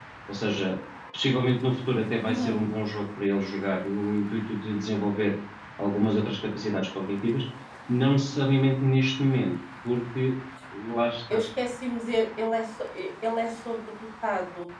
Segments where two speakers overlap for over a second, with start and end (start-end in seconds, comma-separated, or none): none